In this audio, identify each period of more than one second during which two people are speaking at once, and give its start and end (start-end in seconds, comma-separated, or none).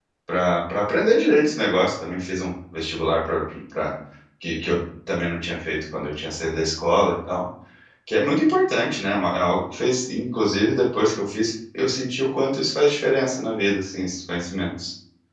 none